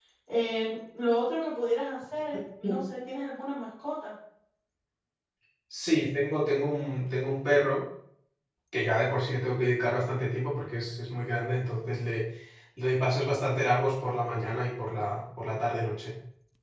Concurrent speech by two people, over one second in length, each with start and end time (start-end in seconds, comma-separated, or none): none